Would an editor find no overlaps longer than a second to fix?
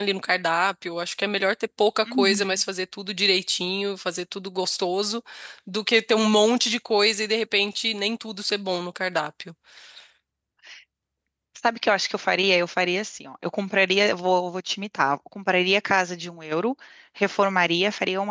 Yes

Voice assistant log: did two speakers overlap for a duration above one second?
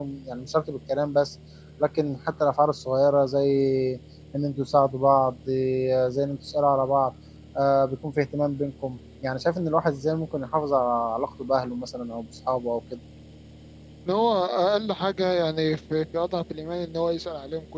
No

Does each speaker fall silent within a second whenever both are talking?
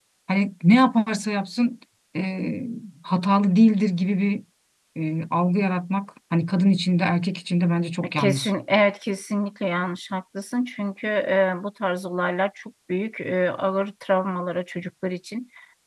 Yes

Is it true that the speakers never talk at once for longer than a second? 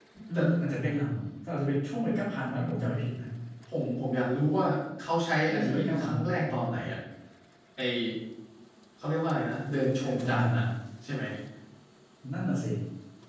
No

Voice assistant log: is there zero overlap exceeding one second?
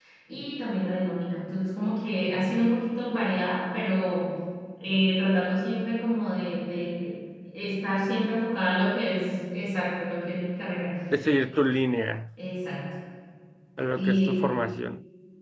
Yes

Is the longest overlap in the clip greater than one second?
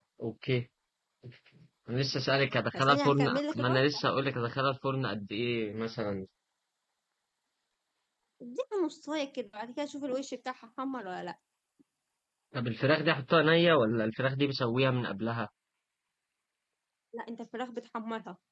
Yes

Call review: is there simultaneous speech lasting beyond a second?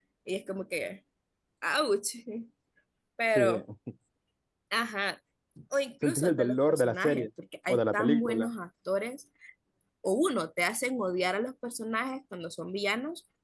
Yes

